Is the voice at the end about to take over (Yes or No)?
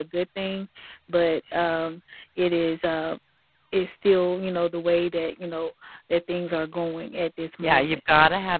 Yes